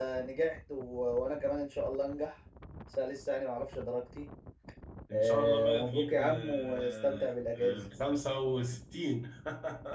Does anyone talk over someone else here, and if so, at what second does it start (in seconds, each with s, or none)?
5.1 s